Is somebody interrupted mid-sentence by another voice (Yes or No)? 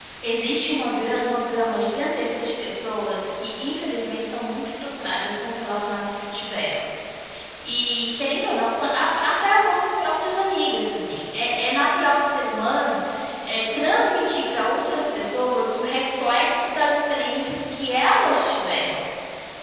No